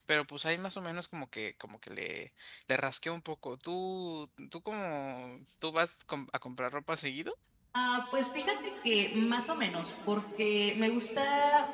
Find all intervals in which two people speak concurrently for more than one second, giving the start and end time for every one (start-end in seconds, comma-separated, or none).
none